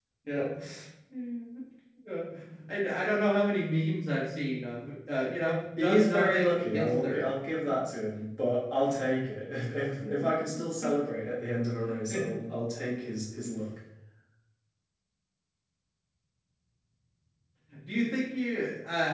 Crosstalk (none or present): present